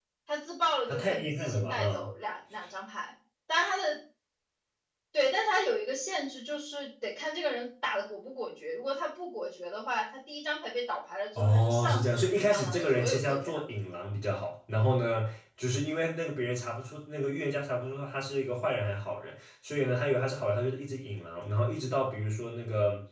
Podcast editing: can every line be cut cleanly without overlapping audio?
No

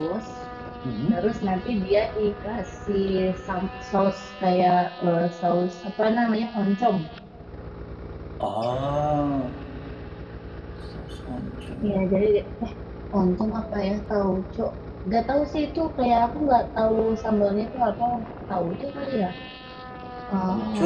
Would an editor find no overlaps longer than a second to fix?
Yes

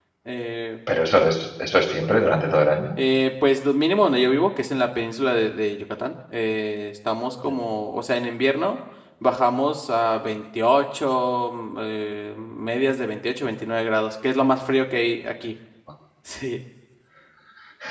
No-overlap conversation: Yes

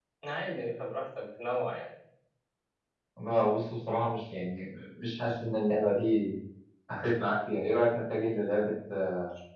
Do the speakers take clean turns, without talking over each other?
Yes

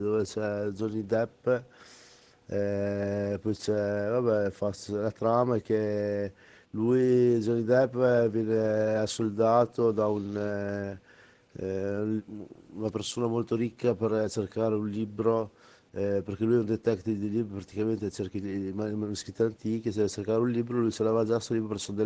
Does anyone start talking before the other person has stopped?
No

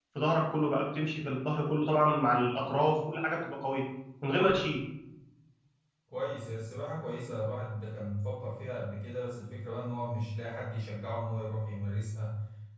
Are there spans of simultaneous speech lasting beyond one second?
No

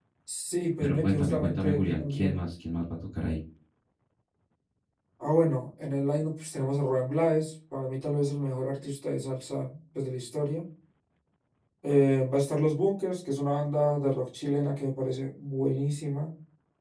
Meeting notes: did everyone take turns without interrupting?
No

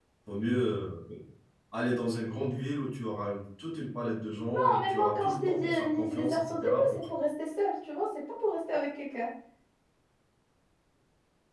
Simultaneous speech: Yes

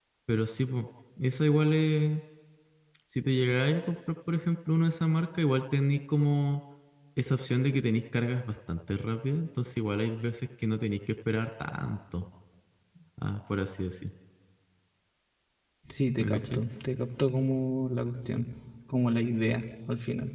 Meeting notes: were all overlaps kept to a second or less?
Yes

